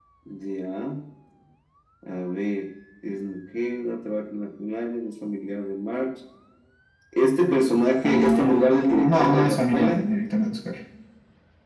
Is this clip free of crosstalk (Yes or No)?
No